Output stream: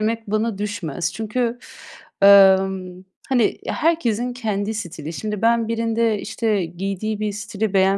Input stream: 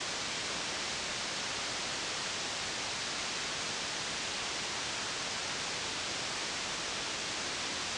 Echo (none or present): none